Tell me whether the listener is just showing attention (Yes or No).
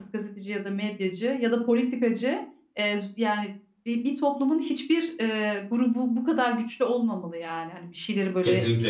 No